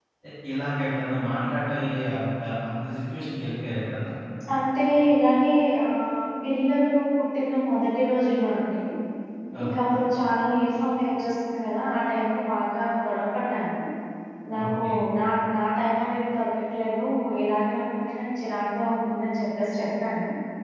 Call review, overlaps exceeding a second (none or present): none